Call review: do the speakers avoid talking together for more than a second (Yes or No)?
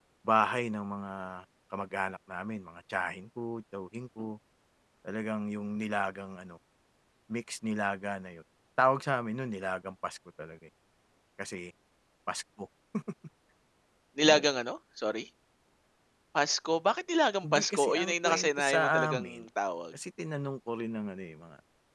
No